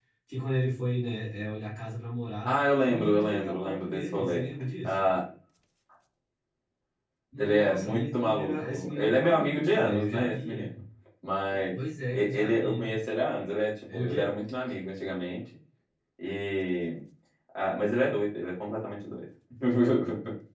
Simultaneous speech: Yes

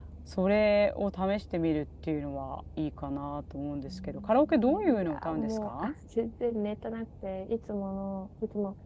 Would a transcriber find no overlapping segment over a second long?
No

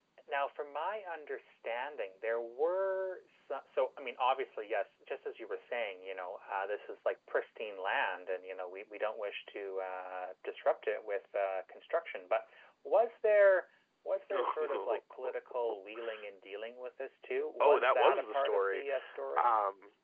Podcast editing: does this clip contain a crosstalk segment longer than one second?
Yes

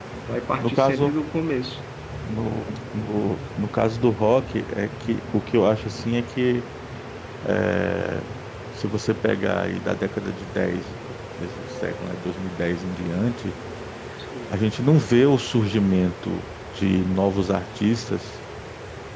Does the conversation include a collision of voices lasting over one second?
No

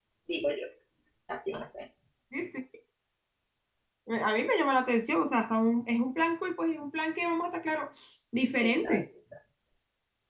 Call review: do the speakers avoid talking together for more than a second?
Yes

